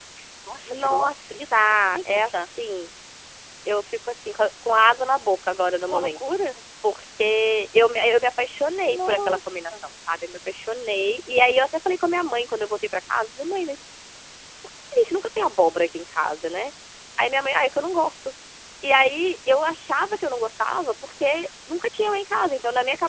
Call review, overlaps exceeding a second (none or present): present